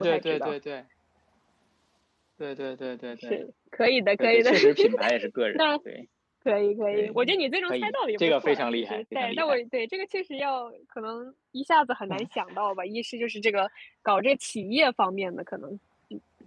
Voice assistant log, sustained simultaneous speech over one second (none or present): present